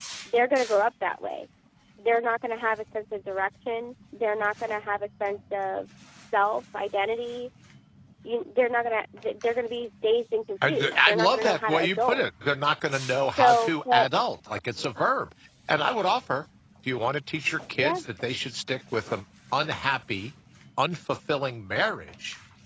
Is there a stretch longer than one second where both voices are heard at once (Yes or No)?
Yes